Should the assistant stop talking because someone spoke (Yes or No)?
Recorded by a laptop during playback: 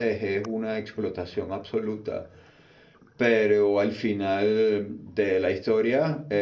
Yes